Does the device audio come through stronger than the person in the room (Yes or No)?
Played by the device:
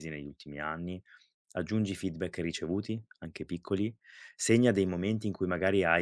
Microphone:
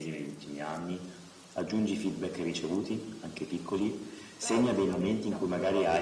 Yes